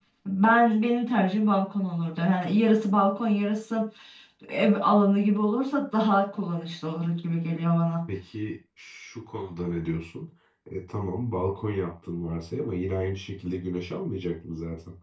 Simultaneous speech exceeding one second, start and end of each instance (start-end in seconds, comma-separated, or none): none